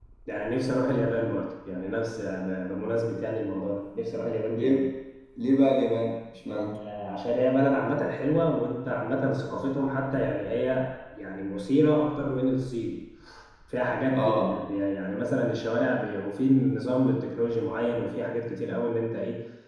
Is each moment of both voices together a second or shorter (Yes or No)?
Yes